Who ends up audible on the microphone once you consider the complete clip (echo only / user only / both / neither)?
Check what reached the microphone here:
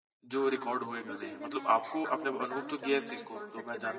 both